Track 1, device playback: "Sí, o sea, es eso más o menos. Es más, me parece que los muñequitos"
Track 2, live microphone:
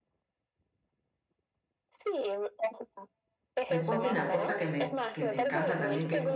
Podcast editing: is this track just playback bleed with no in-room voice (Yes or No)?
No